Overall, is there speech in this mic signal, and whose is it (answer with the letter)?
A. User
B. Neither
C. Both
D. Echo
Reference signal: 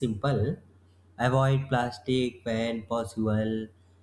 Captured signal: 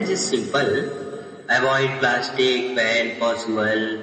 D